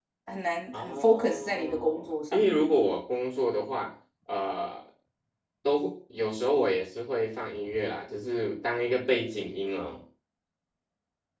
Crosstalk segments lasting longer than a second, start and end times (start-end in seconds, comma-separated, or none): 0.7-2.8